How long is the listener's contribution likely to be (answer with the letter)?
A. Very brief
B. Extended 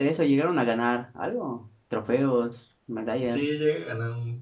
B